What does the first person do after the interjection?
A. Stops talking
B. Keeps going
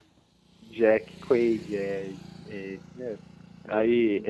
A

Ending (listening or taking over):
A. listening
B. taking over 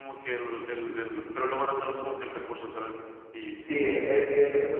B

